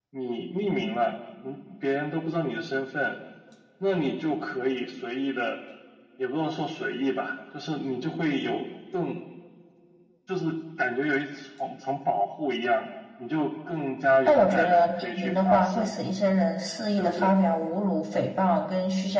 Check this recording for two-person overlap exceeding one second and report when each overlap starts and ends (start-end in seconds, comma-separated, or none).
14.2-15.9